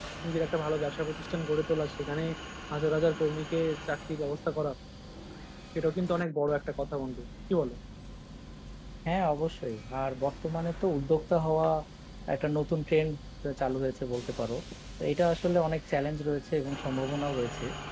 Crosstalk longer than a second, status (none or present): none